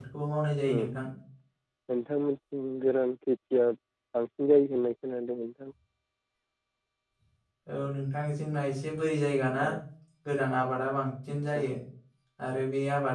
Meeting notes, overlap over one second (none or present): none